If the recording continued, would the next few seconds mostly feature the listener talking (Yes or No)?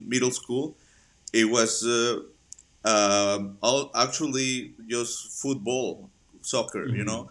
No